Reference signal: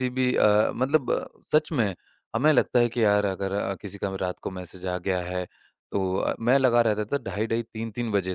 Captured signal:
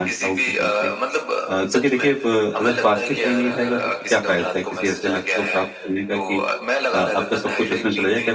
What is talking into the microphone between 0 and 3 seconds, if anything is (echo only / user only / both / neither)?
both